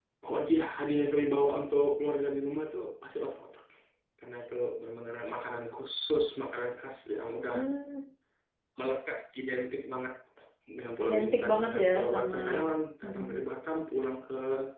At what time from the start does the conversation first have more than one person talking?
11 s

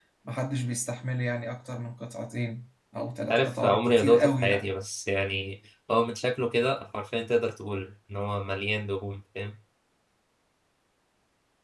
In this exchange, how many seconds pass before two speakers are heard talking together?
3 s

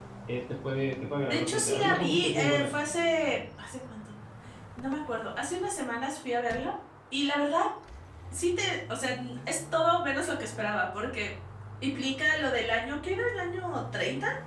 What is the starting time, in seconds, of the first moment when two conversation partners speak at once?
1 s

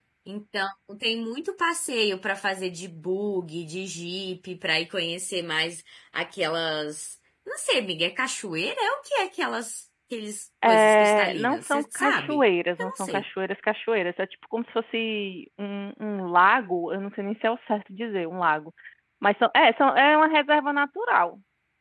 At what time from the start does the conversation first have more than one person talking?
11 s

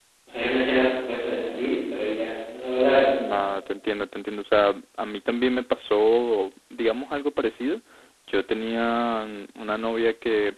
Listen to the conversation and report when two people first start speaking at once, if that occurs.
none

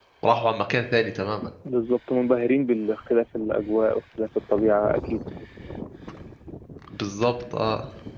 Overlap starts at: none

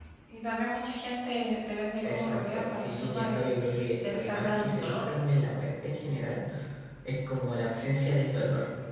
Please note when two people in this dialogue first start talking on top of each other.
2 s

